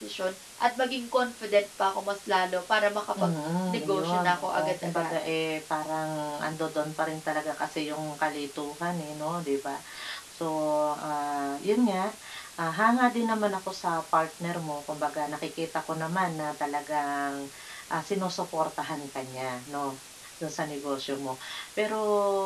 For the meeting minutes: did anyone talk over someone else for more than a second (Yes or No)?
Yes